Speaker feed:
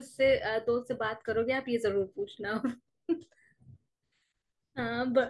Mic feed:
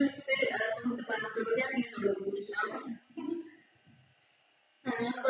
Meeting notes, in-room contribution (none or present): none